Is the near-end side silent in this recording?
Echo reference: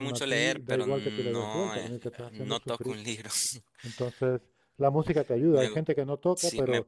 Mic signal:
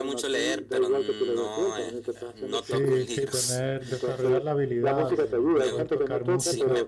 No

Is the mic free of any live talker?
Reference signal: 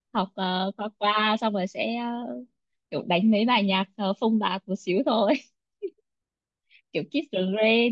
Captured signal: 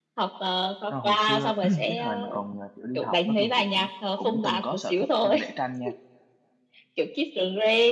No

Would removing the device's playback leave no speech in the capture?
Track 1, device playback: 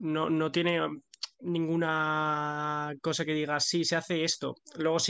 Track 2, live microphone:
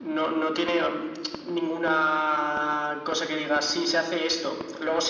Yes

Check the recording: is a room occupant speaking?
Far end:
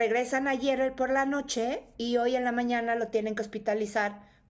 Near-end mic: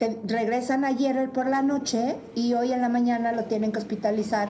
No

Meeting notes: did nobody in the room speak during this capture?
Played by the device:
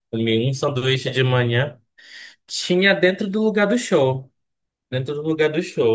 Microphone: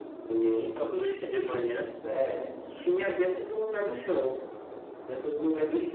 No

